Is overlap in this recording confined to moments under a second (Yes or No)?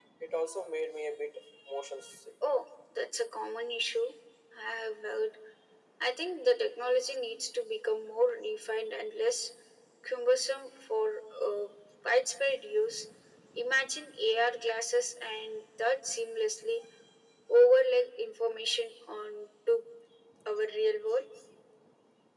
Yes